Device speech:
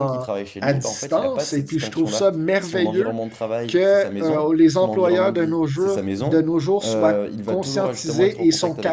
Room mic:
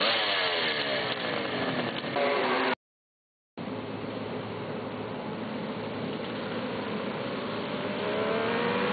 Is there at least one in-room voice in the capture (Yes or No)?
No